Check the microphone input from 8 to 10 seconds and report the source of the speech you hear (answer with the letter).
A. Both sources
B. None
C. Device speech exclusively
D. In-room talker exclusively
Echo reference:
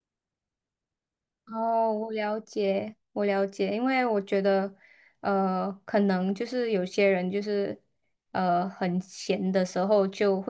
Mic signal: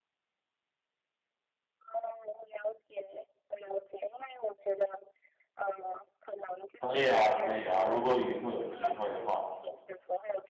A